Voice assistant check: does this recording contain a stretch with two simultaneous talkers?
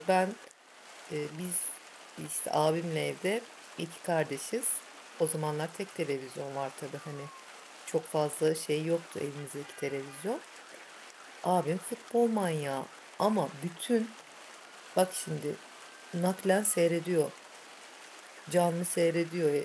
No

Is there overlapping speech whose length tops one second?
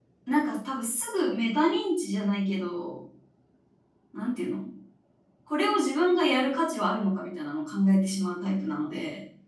No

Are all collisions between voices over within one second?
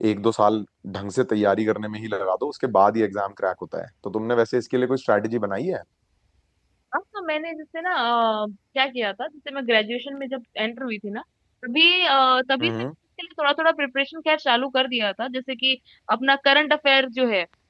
Yes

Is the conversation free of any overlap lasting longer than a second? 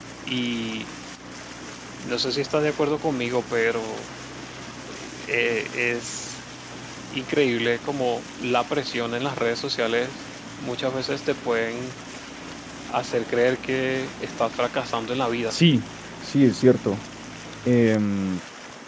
Yes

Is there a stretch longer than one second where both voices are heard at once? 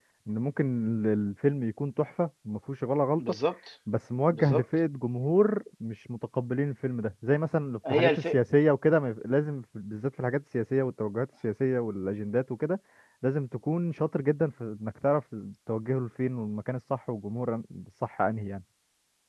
No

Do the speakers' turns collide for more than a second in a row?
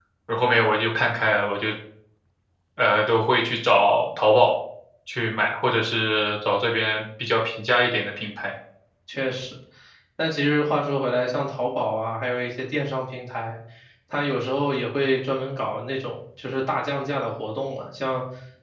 No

